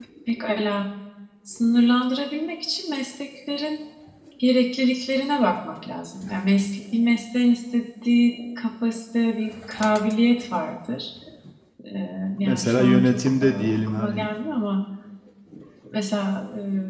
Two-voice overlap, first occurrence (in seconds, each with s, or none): 12.4 s